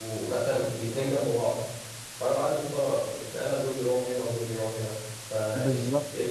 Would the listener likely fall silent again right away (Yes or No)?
No